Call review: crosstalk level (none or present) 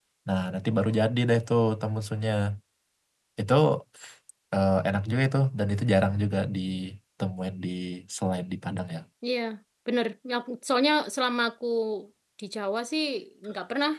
none